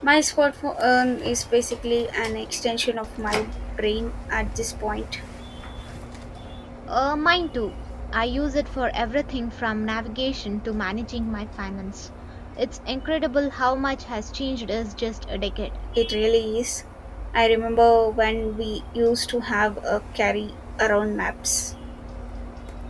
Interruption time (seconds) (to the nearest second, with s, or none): none